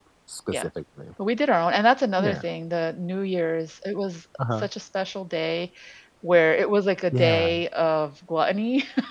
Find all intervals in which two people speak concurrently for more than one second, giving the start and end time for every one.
none

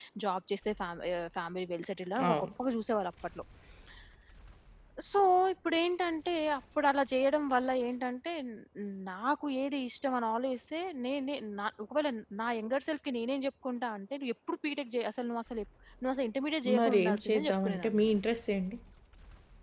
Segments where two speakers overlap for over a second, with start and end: 16.8-18.2

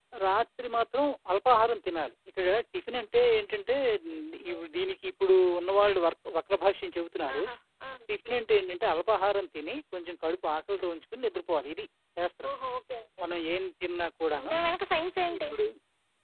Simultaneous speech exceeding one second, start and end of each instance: none

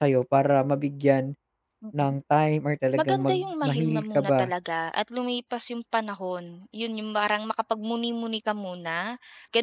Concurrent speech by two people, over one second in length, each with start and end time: 3.0-4.5

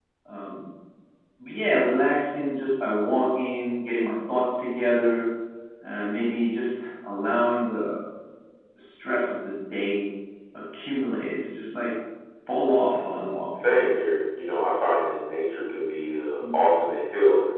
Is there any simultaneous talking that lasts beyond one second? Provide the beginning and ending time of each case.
13.0-14.2

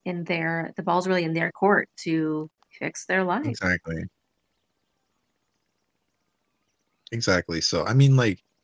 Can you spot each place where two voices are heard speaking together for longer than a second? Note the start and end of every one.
none

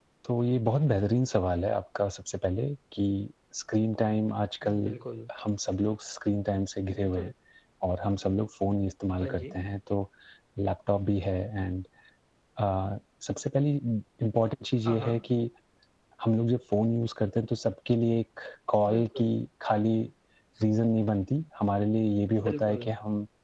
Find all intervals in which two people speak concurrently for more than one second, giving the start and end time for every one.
none

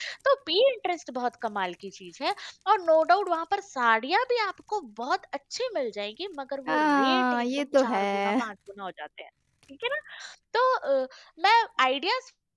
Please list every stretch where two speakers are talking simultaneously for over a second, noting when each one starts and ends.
6.7-8.3

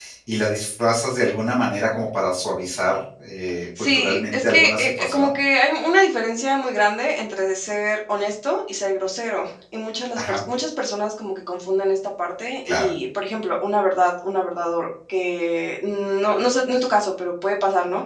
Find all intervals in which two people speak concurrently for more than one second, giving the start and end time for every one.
3.8-5.3

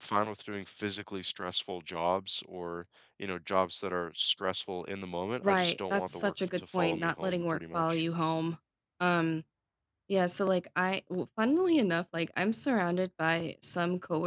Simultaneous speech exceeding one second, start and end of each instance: 5.4-8.0

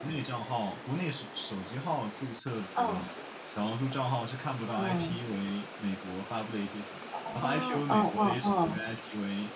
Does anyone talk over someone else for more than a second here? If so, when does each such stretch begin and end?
7.3-8.8

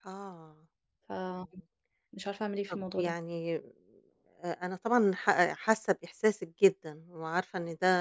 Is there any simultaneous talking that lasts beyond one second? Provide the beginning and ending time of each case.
none

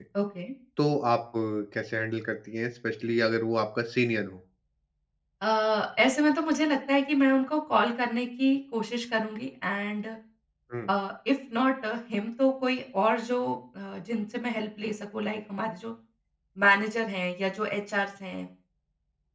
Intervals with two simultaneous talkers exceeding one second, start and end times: none

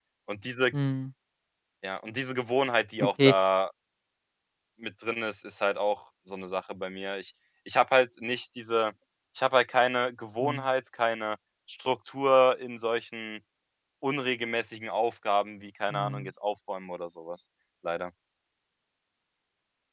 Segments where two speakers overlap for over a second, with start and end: none

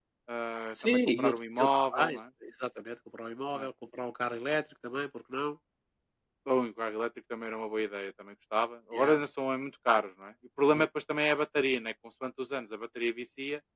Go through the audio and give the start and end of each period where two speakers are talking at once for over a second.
0.8-2.2

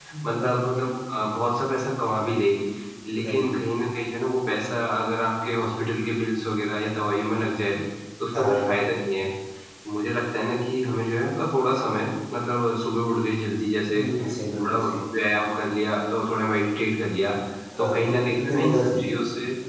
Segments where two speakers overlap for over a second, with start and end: 17.8-19.1

